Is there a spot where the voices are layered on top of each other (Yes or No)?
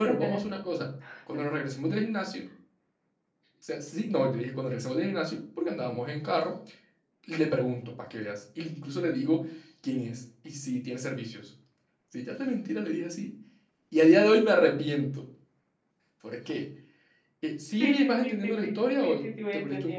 Yes